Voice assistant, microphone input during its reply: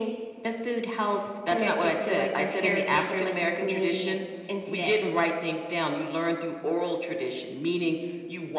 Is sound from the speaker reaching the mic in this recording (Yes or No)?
Yes